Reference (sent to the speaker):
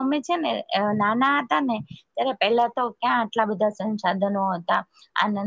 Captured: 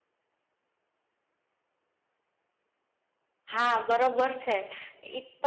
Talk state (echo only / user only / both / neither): user only